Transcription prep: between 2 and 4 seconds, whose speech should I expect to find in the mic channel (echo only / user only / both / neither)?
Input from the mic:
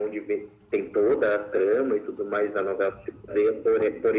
echo only